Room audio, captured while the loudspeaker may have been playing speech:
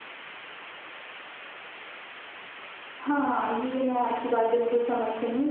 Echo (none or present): none